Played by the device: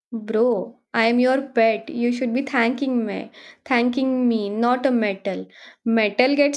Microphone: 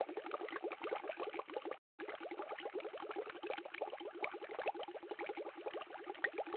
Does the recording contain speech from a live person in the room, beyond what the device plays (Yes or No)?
No